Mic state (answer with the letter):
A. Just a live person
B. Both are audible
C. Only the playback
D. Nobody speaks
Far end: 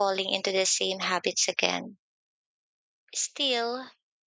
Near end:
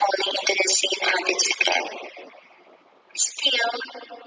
C